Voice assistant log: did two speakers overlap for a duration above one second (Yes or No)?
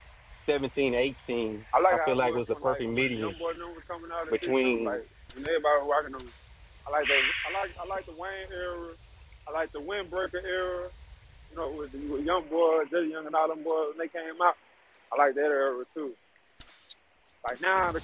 Yes